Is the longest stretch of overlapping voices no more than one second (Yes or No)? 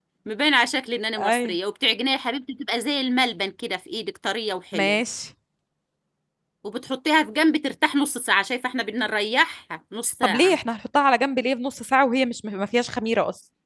Yes